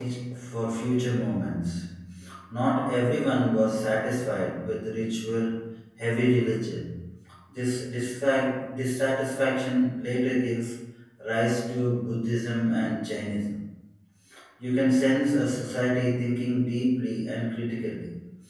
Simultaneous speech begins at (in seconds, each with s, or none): none